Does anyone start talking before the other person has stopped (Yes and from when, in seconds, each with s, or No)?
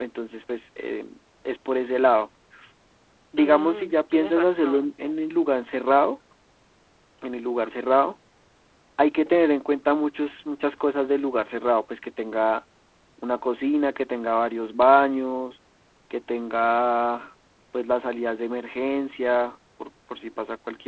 Yes, from 3.4 s